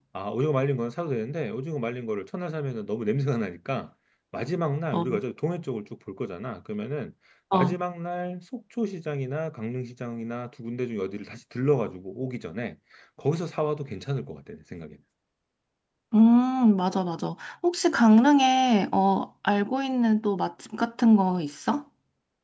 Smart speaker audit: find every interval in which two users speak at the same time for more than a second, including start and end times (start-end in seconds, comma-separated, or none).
none